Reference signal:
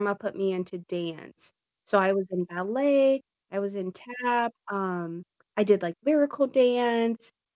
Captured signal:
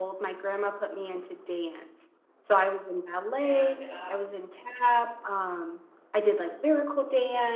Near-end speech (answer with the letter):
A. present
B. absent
A